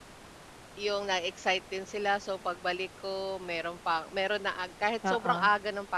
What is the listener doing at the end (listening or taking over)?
listening